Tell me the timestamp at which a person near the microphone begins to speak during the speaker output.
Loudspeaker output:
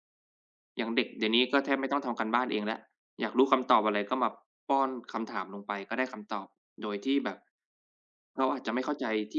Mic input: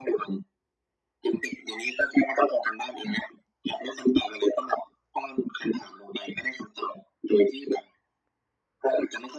none

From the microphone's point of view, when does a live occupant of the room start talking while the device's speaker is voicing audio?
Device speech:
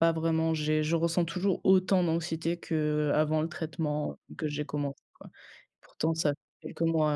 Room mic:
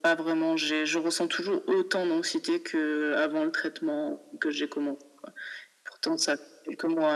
none

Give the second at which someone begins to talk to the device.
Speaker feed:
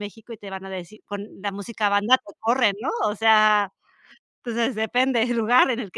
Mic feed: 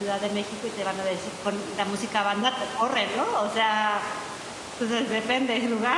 none

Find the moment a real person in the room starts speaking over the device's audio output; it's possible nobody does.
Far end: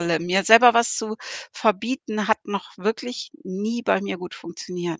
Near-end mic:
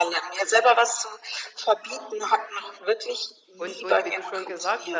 3.6 s

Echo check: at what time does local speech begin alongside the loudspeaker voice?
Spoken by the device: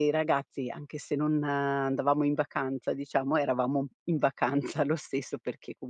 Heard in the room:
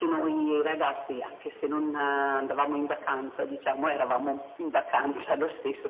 none

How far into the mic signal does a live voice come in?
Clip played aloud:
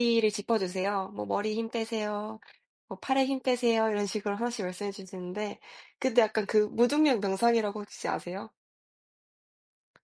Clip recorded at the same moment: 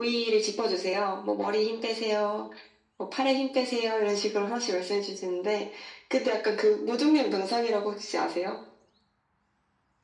none

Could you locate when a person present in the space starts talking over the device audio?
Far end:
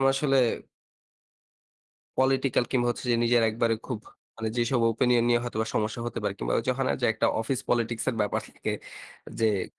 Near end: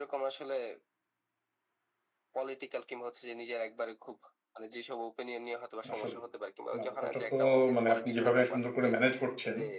5.9 s

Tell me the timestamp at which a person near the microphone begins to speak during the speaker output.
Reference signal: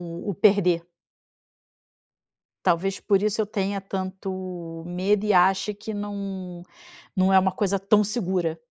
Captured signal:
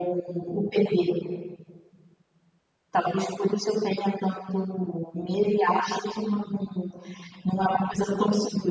none

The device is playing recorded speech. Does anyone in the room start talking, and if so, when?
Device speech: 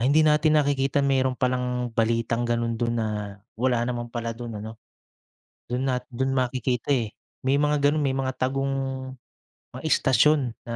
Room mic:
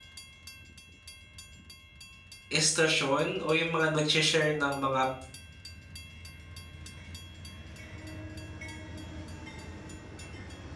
2.5 s

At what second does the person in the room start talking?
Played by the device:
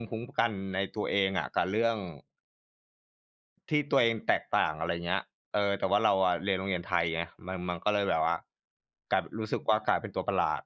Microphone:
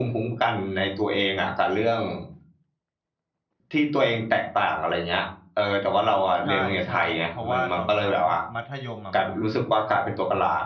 6.4 s

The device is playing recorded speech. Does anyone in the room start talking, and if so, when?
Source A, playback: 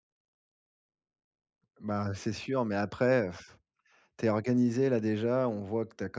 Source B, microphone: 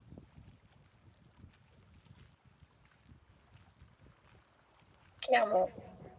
5.2 s

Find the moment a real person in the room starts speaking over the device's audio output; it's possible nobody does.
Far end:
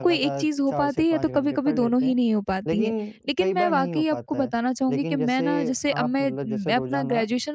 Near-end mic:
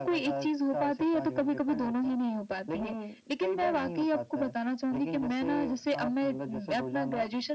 none

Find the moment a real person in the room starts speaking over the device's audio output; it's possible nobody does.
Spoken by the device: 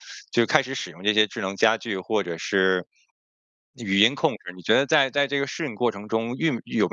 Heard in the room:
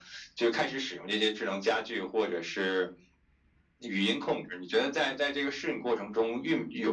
none

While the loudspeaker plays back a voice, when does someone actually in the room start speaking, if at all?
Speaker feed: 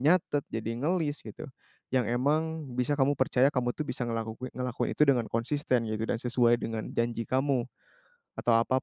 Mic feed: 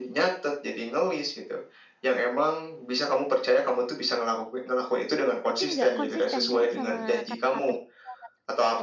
5.5 s

